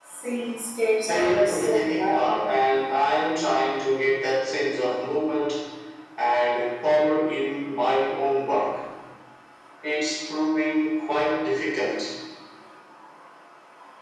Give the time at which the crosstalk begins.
1.1 s

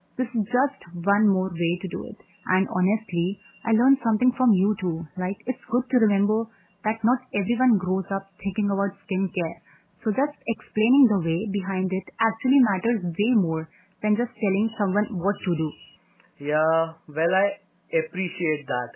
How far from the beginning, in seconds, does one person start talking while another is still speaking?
none

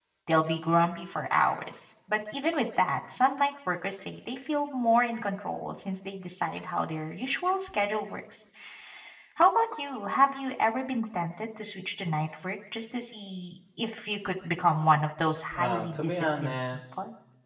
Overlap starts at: 15.6 s

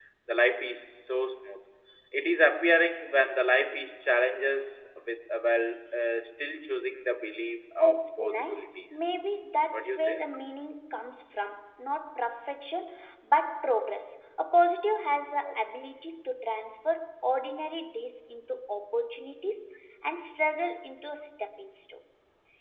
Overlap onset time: 7.8 s

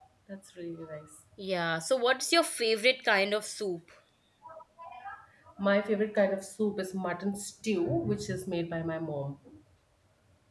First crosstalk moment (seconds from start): none

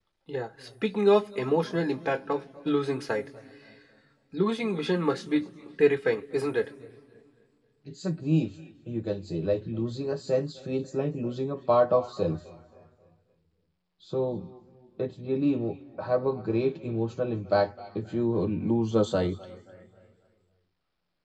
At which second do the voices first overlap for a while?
none

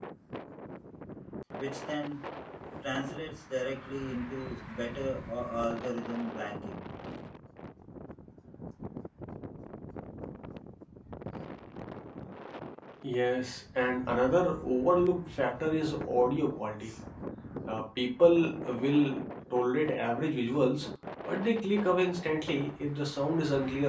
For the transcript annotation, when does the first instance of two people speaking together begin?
none

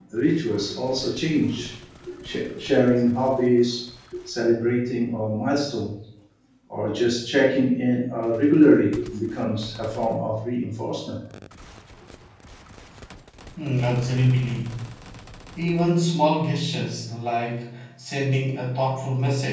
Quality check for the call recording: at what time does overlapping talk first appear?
none

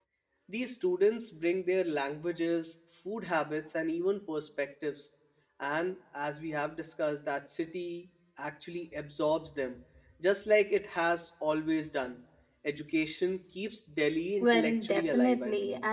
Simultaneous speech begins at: 14.4 s

